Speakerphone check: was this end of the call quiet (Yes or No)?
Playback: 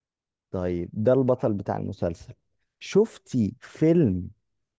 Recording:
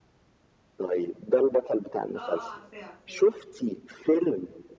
No